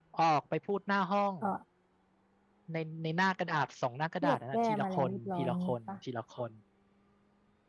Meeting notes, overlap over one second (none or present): present